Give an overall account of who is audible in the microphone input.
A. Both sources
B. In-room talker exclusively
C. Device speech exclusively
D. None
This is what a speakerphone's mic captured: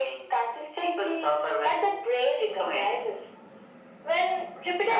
C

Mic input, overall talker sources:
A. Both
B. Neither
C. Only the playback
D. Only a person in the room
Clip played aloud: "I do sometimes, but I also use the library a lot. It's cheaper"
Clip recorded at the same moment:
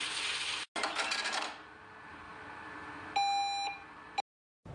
B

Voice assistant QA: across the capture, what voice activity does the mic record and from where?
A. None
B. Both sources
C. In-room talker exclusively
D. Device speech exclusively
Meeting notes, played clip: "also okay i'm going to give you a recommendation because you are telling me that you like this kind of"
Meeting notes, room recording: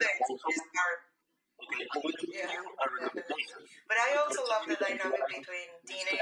B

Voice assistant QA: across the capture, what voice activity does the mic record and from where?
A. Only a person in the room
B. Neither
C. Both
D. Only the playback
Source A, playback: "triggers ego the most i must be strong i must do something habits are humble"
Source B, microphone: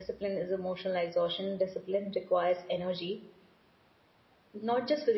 A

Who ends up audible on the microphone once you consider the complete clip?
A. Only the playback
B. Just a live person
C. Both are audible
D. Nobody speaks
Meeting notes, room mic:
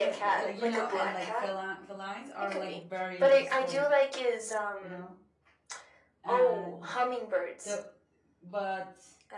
C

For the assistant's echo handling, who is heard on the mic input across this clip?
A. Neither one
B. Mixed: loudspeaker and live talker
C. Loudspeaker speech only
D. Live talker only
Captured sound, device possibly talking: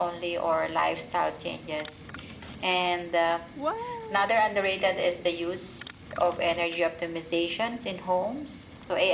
B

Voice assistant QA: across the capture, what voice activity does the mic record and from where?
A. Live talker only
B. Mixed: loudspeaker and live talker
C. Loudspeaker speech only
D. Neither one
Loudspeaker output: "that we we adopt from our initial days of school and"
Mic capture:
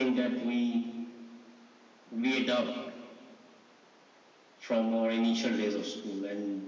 C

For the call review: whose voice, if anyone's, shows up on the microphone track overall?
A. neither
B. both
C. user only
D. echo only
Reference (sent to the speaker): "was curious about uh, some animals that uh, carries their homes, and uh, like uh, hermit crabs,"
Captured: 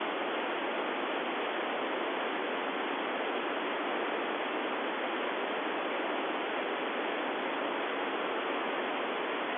A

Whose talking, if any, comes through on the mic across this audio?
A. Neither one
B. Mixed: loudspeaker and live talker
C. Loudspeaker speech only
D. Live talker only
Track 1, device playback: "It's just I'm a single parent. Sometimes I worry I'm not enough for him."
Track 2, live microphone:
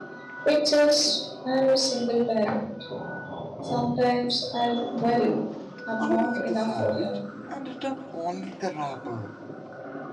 B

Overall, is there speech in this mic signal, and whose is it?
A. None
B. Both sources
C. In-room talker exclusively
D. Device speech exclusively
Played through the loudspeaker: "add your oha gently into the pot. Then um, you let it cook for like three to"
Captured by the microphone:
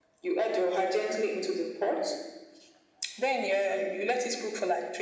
D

